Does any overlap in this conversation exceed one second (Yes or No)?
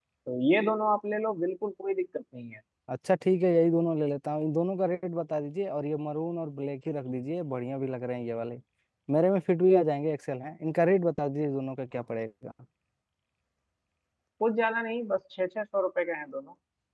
No